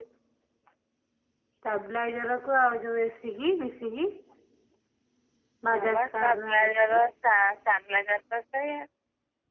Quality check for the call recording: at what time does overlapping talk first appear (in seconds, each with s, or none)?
5.7 s